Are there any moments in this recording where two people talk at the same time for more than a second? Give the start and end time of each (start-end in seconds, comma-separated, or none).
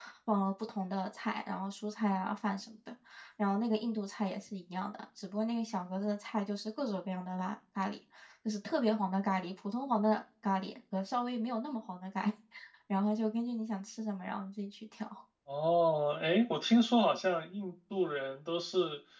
none